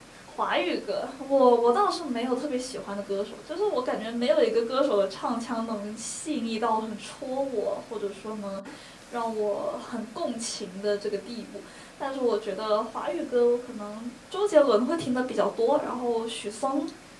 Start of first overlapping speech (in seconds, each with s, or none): none